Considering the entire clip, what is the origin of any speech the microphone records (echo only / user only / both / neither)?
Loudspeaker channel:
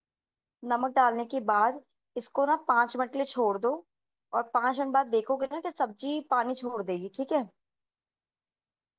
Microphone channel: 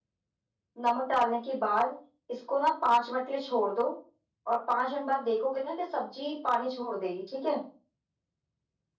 echo only